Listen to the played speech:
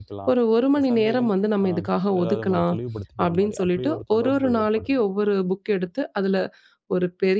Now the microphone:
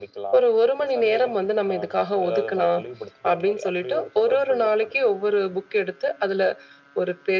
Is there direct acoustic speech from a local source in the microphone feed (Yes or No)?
No